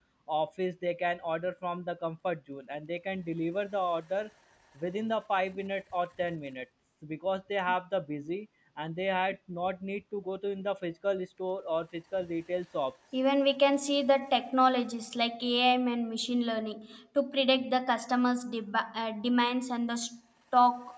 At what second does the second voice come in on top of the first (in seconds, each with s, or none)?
none